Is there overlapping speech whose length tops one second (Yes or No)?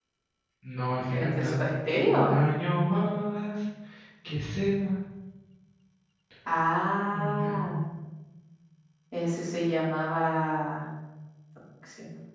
No